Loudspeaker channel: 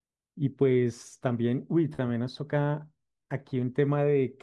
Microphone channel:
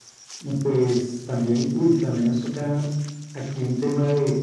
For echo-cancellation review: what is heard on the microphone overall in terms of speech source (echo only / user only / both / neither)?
echo only